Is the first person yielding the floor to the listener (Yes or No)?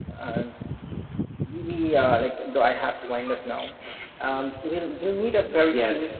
Yes